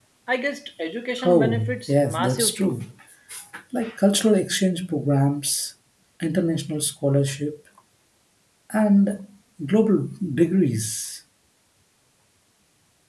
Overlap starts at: 1.2 s

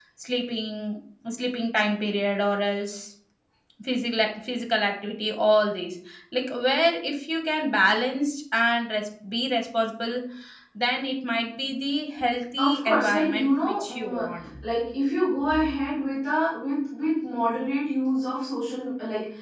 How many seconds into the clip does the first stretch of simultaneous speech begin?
12.6 s

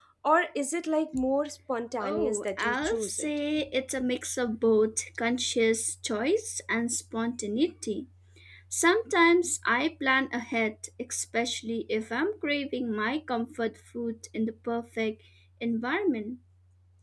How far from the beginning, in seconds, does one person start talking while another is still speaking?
2.0 s

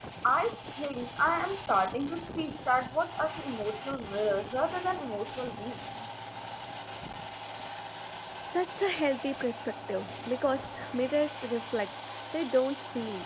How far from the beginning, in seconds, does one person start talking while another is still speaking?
none

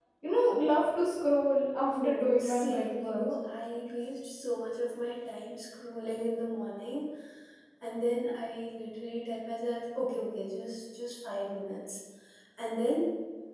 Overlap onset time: 1.9 s

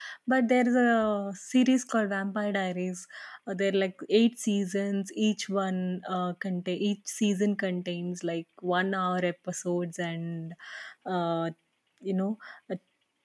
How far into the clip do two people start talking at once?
none

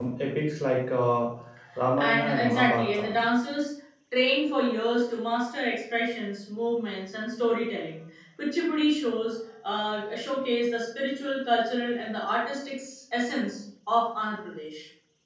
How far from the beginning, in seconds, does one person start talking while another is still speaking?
2.0 s

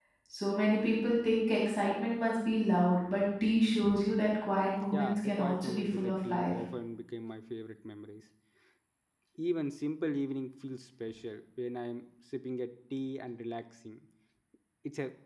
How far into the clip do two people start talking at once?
4.9 s

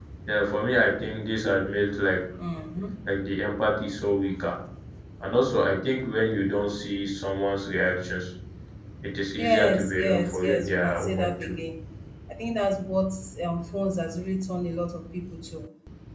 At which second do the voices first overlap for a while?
9.4 s

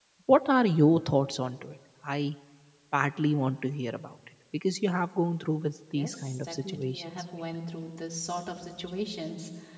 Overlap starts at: 5.9 s

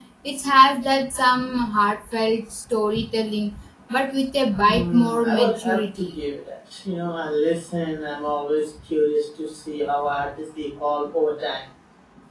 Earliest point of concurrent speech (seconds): 4.6 s

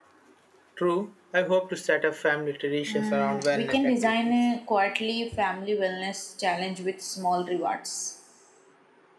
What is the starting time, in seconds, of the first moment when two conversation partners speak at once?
2.9 s

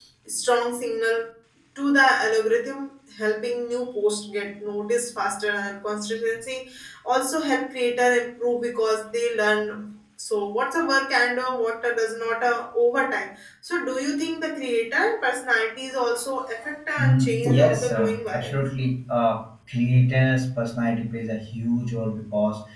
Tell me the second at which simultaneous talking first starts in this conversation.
17.0 s

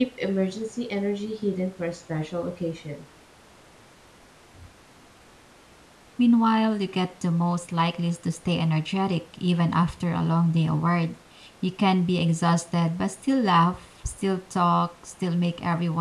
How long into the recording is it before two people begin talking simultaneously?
none

